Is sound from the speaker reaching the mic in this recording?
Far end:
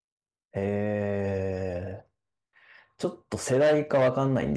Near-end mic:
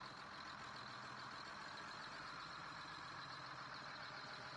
No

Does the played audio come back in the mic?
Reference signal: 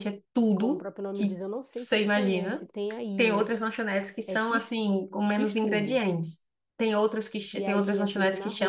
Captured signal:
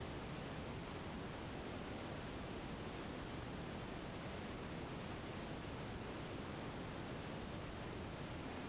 No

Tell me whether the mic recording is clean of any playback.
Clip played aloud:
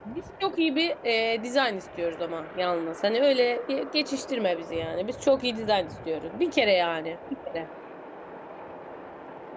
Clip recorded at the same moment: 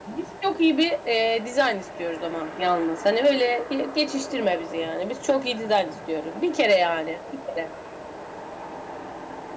No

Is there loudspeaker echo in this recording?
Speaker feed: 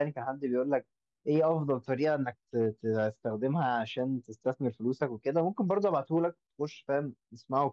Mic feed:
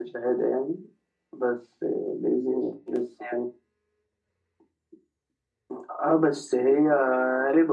No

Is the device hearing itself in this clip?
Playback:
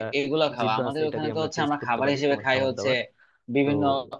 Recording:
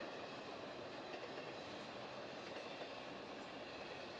No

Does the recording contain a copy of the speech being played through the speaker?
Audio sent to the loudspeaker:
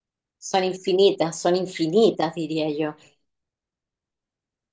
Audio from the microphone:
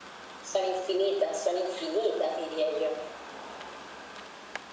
Yes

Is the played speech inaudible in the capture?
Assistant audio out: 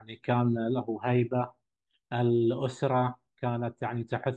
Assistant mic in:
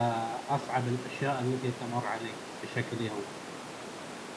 Yes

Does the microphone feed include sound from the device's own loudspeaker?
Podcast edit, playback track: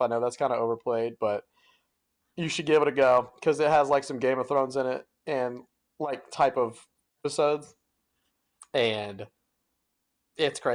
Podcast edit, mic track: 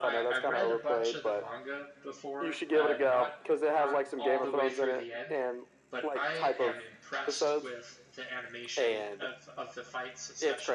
Yes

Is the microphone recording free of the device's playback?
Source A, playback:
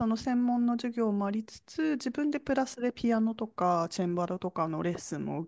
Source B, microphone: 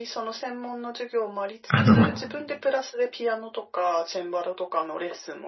No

